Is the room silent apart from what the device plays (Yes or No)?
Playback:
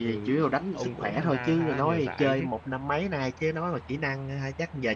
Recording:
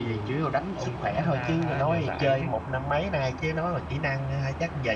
Yes